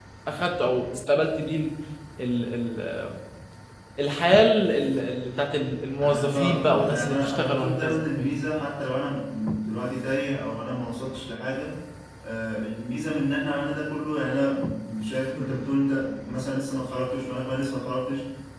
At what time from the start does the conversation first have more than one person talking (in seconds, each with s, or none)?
6.0 s